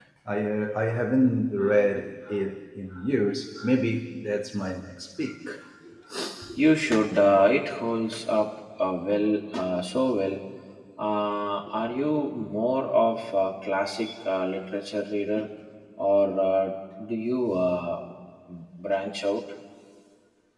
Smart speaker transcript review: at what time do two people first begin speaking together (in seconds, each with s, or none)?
none